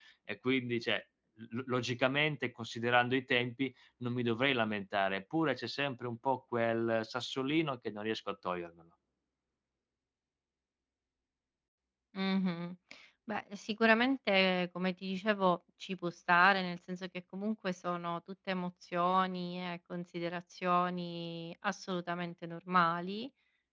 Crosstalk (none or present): none